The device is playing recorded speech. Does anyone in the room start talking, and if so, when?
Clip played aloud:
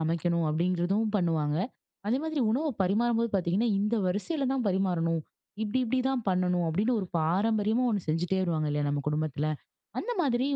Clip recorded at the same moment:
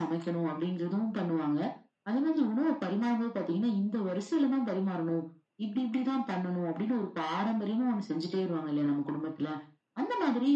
none

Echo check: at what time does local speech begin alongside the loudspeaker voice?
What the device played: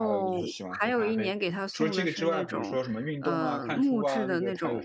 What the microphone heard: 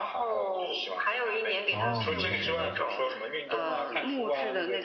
1.7 s

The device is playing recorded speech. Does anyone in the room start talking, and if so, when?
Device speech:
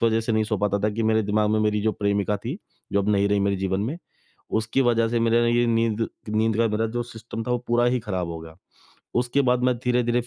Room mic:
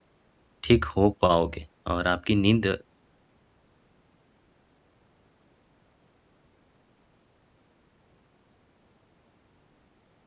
0.6 s

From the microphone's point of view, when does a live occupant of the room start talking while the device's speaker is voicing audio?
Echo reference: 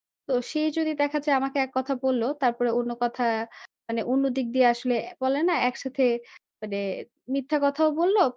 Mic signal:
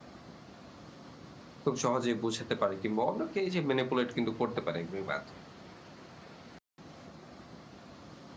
1.6 s

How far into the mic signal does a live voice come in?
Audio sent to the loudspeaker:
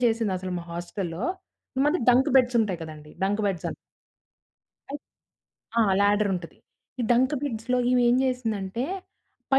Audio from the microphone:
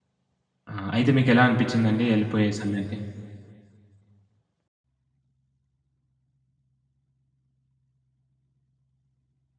0.7 s

